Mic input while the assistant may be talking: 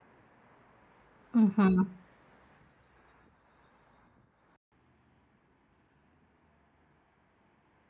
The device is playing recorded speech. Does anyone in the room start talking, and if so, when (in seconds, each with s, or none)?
1.3 s